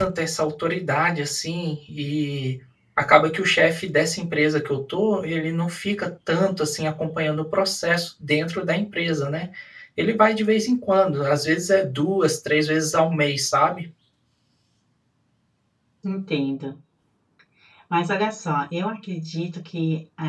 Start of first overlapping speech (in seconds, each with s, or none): none